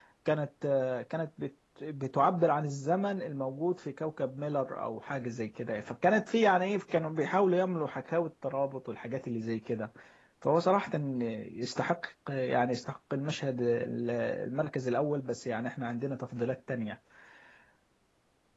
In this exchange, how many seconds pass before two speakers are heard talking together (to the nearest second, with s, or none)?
none